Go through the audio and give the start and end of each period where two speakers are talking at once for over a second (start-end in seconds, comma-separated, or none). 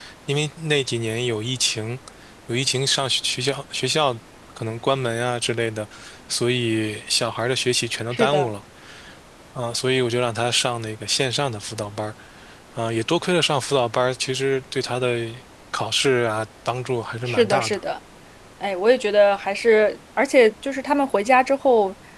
none